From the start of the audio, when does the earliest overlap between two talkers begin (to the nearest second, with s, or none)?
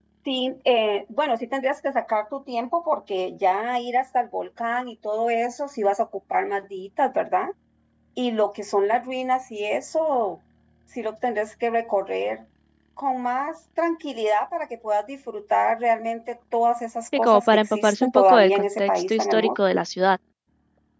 17 s